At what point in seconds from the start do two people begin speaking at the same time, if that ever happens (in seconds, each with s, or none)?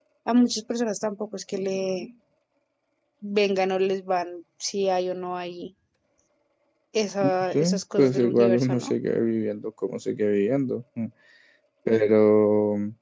7.5 s